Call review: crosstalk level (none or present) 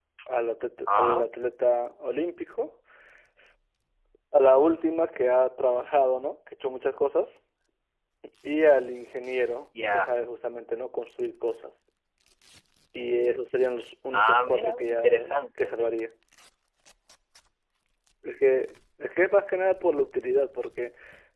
present